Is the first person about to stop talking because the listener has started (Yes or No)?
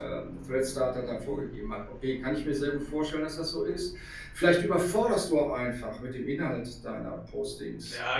Yes